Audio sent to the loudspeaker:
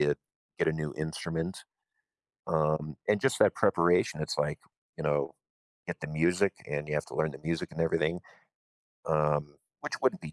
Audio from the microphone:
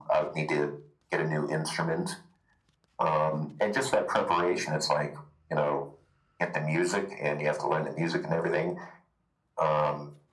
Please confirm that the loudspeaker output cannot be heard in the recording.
No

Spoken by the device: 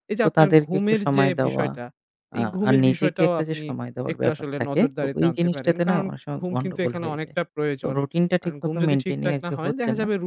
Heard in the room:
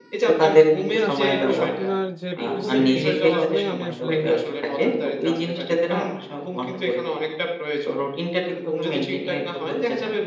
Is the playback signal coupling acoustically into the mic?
Yes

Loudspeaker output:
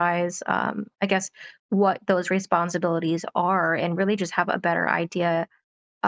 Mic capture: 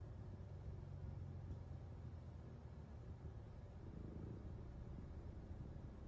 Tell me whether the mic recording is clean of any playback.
Yes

